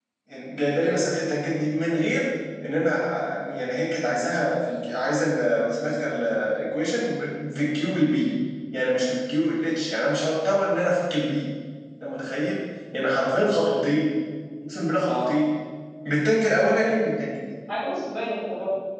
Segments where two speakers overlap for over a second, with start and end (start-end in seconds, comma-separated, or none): none